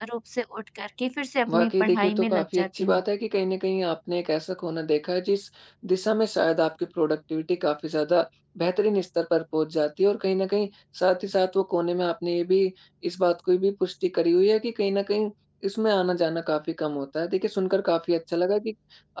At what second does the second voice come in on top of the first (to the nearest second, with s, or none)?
1 s